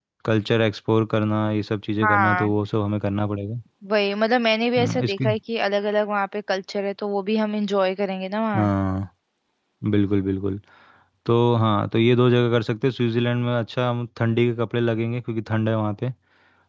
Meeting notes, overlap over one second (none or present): none